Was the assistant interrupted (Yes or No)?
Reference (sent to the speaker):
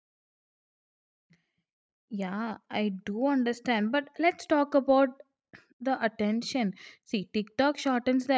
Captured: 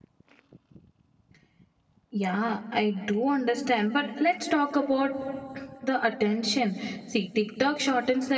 No